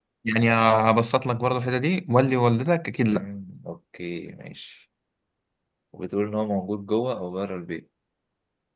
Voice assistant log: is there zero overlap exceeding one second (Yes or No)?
Yes